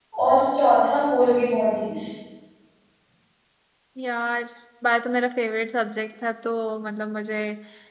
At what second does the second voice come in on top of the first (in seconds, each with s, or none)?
none